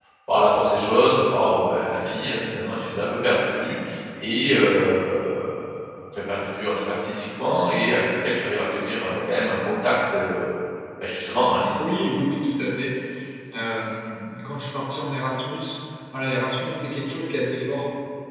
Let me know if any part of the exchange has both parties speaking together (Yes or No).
No